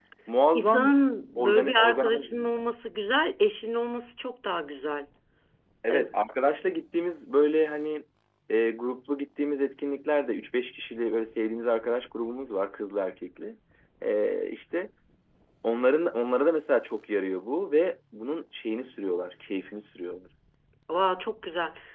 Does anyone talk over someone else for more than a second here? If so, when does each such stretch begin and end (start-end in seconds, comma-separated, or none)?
1.4-2.7